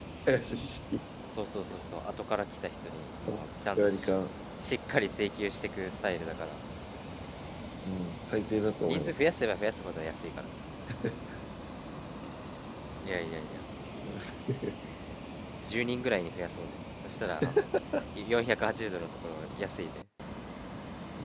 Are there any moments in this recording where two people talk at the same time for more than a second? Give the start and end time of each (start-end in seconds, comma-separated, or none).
none